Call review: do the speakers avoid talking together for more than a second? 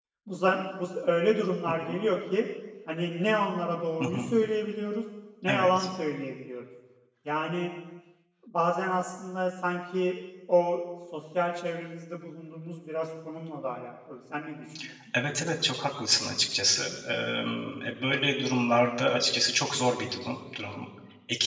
Yes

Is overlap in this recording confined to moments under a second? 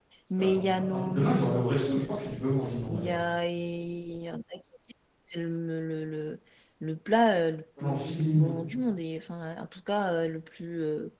No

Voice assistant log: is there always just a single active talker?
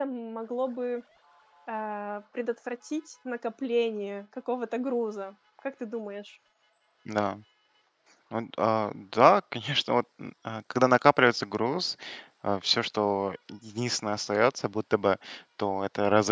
Yes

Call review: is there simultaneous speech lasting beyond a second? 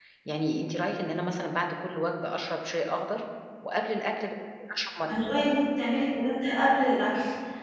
No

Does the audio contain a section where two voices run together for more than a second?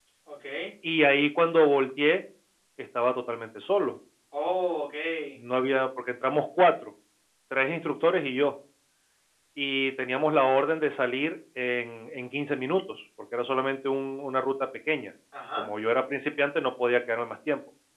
No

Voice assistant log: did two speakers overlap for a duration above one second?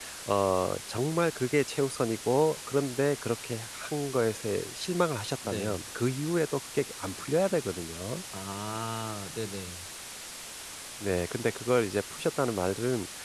No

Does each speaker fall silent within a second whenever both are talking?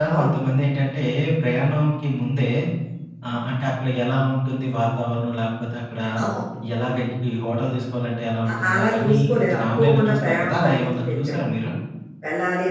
No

